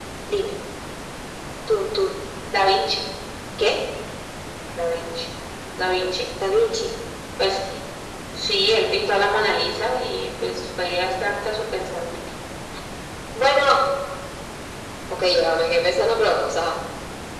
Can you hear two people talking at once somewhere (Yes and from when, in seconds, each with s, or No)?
No